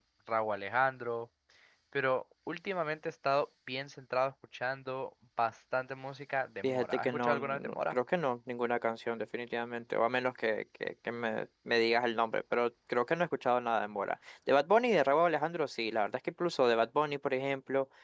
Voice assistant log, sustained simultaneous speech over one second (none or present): present